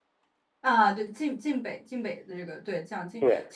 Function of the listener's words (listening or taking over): listening